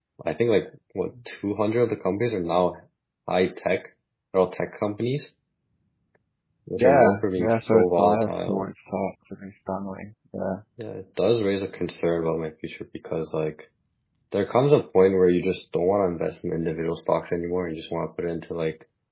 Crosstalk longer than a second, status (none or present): present